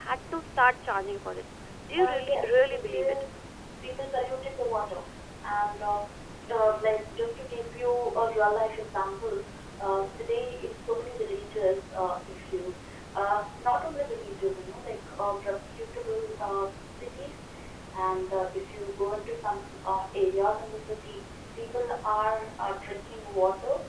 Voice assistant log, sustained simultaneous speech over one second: present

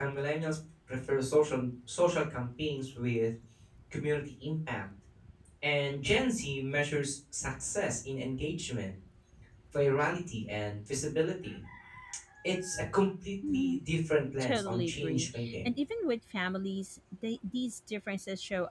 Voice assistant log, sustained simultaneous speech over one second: present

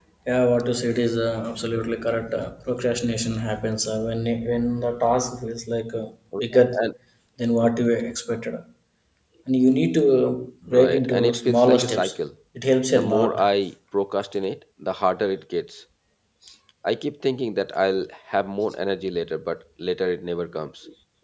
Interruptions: present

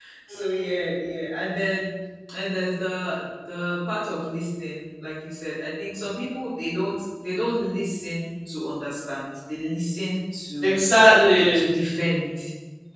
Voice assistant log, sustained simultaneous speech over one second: none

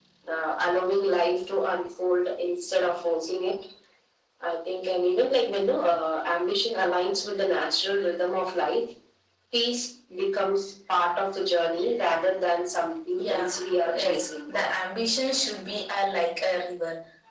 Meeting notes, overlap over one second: present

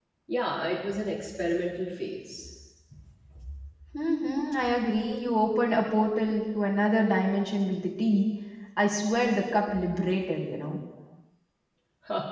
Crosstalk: none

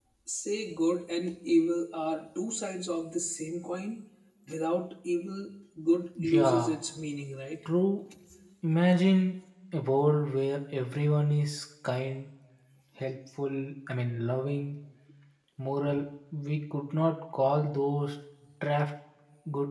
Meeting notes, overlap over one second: none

